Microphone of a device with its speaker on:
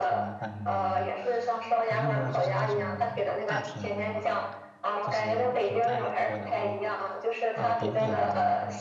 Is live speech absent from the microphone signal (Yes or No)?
No